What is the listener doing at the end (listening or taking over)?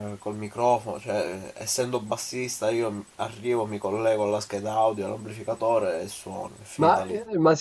taking over